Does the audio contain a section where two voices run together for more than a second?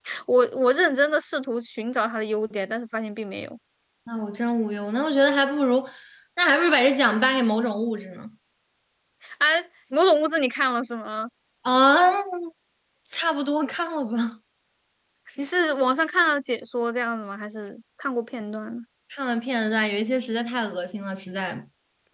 No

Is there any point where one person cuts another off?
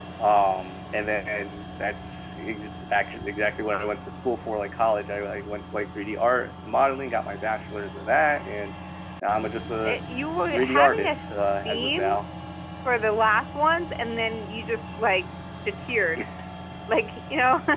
Yes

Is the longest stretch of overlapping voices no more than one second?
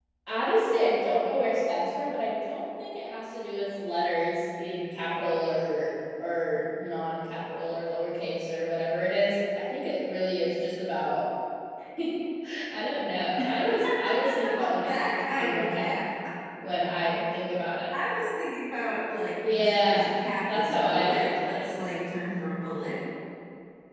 No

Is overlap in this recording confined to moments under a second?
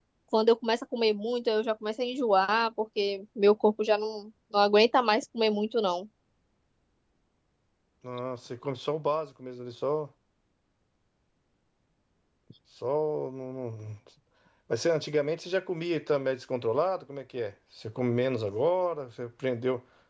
Yes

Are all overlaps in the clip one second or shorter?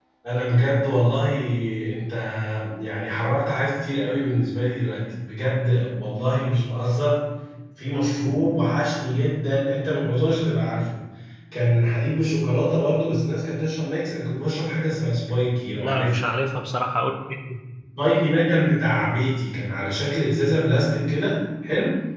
Yes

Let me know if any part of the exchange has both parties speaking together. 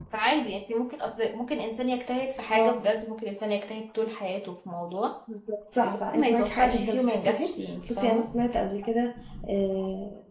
Yes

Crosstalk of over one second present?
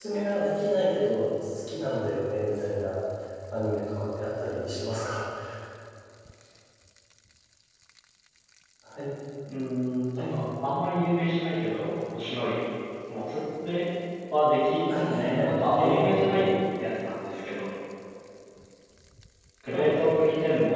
Yes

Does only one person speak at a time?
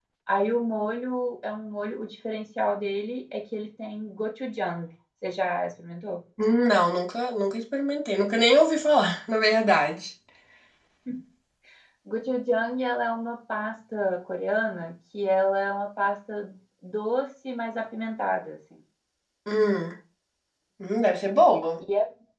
Yes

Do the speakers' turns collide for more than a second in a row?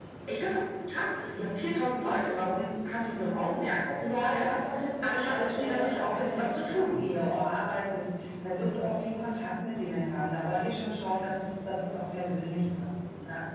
Yes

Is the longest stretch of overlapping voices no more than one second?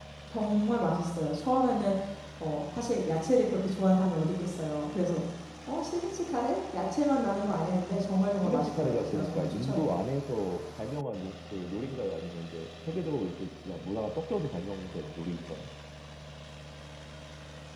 No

